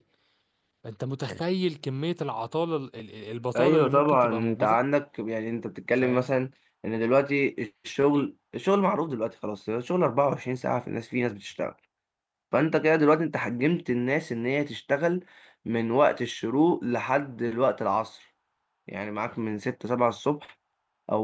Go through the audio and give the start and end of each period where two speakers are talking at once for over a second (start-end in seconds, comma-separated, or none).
3.5-4.8